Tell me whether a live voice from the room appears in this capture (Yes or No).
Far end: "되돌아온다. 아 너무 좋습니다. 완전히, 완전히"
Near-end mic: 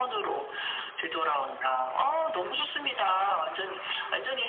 No